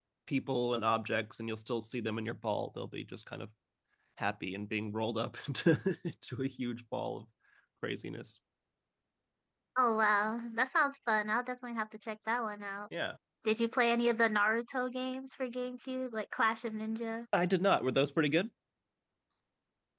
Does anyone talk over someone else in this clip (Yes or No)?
No